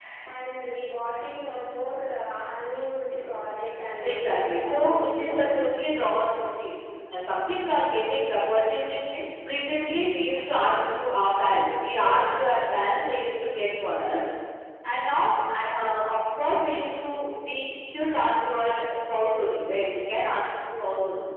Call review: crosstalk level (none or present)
present